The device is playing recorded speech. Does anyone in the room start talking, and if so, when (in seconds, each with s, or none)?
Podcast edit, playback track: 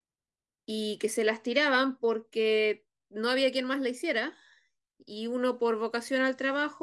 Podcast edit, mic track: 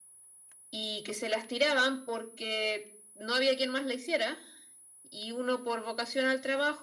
none